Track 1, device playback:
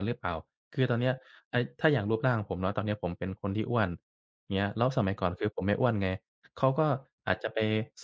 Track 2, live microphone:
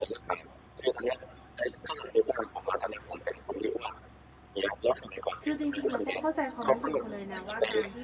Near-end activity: present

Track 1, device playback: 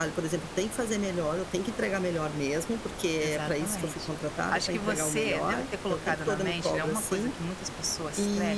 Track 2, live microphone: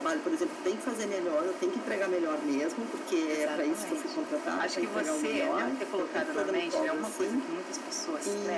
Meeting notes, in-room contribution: none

